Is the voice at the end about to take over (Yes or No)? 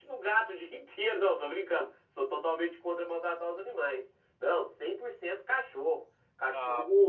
No